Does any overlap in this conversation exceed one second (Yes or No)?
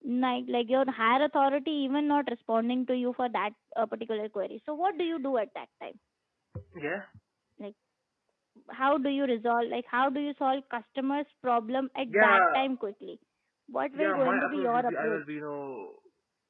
Yes